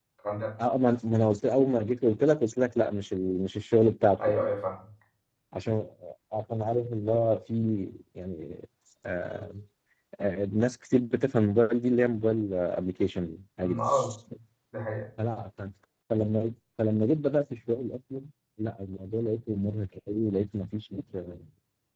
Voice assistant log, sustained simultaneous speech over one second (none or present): none